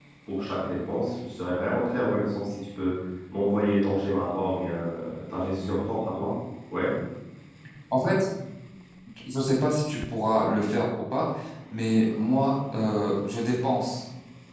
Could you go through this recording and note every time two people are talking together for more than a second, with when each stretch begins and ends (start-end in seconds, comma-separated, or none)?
none